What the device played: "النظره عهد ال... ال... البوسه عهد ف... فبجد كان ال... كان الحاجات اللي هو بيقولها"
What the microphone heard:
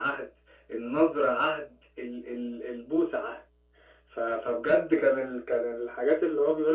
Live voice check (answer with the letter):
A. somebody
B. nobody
B